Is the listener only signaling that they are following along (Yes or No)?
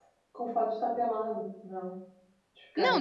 No